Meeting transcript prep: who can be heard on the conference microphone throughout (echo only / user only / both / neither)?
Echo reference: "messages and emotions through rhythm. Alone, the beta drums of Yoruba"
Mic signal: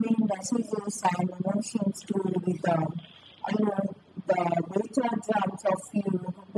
echo only